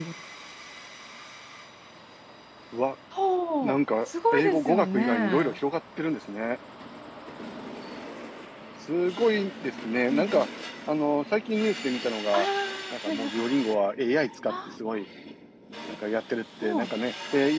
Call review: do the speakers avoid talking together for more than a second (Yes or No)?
No